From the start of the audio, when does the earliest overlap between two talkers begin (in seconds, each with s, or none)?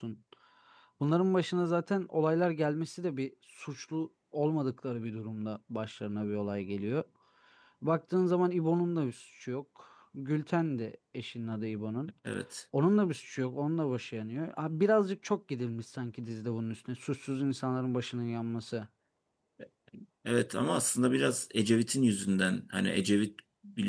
none